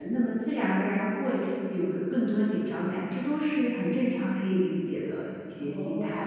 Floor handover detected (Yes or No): Yes